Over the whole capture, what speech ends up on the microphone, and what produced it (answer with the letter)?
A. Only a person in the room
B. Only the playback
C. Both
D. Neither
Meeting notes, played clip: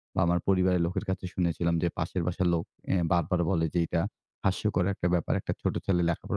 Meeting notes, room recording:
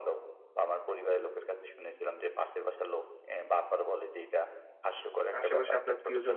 C